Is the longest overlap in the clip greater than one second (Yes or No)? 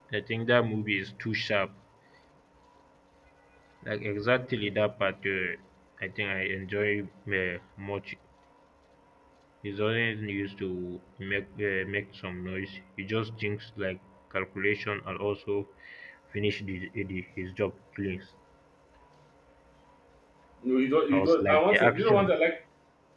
Yes